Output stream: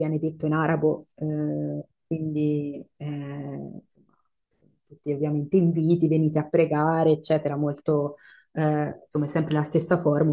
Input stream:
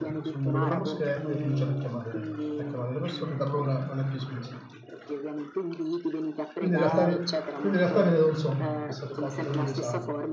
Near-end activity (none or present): present